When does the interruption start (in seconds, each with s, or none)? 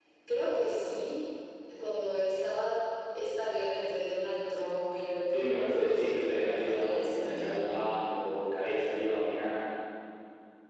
5.3 s